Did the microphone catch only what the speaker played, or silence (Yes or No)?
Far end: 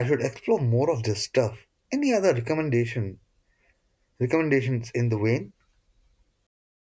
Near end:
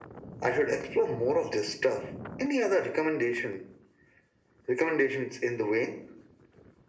Yes